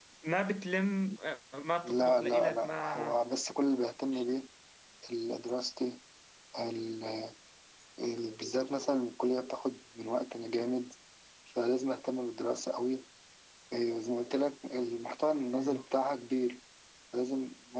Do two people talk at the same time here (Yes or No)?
Yes